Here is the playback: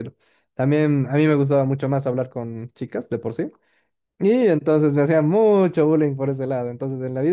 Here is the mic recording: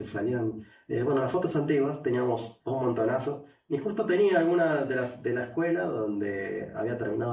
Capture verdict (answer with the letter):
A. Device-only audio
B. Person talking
B